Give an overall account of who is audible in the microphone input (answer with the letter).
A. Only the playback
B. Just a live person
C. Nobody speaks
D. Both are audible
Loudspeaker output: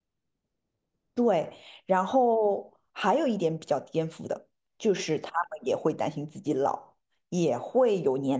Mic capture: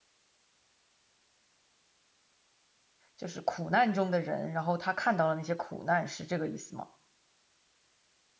B